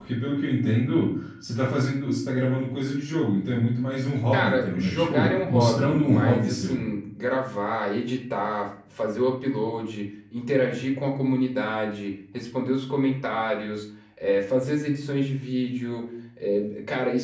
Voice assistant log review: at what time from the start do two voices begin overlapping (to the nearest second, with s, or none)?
4 s